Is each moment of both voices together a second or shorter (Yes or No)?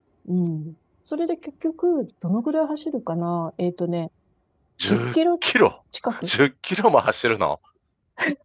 Yes